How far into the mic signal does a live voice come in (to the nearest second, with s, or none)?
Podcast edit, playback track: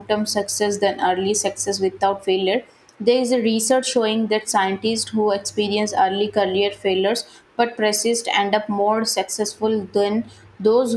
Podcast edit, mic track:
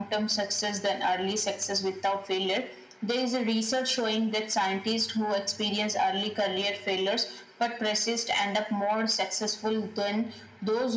none